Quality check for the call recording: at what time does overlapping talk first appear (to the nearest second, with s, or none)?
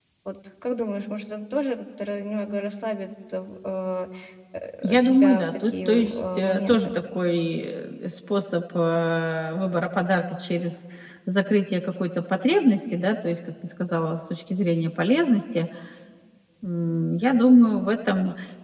5 s